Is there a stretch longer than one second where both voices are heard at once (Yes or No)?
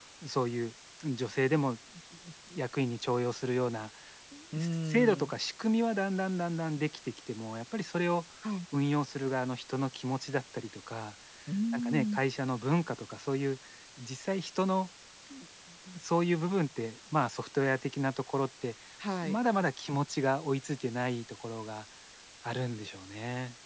No